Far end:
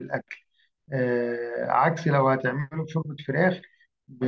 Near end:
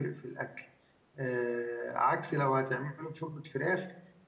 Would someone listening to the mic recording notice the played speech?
Yes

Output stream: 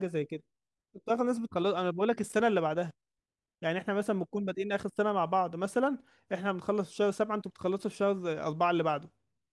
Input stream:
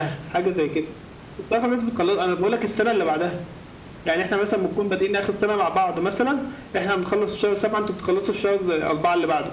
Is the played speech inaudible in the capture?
No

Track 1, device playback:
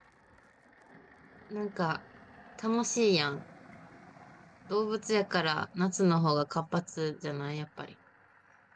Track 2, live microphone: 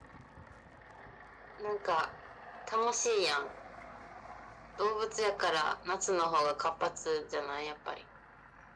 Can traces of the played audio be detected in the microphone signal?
Yes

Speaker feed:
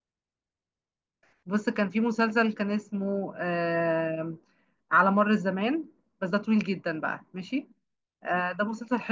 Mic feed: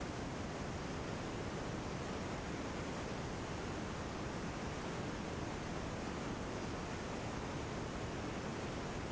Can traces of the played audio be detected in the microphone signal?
No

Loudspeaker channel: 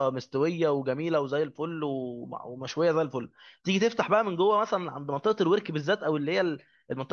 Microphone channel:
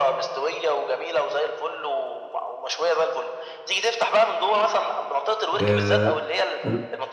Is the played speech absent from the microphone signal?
No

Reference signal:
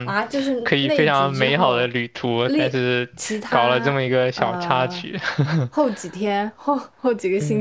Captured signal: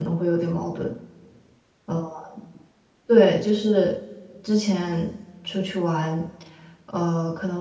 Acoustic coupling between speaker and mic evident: No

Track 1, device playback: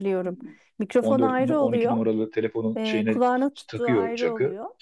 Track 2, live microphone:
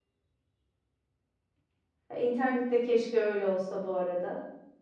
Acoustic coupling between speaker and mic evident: No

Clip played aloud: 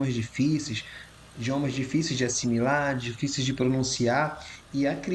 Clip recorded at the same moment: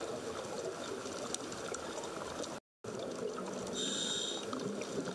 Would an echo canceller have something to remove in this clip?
No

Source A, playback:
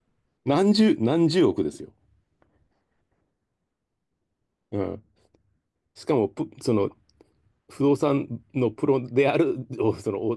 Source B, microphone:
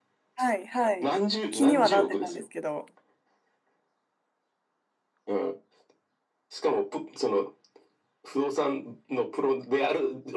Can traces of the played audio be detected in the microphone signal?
Yes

